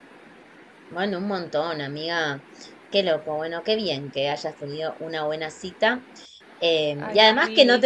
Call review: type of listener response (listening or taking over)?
listening